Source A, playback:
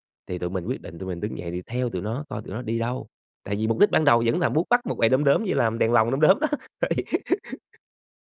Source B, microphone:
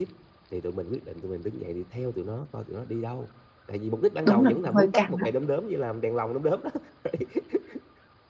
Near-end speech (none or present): present